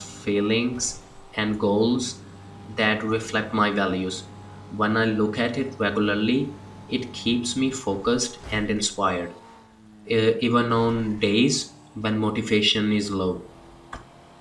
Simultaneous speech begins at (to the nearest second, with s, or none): none